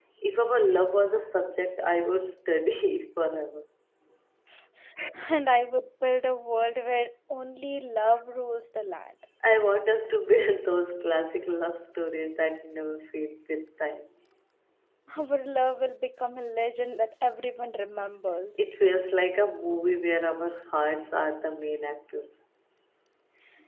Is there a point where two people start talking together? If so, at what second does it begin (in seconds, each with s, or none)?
none